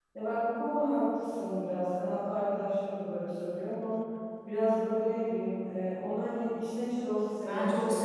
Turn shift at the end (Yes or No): Yes